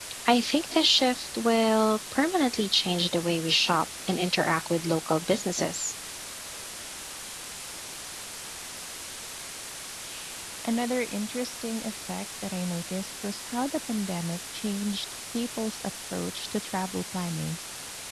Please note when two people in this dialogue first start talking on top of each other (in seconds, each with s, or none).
none